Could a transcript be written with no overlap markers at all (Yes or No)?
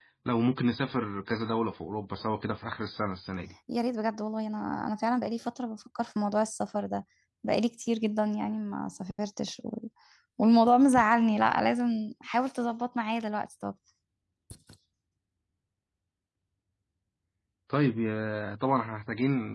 Yes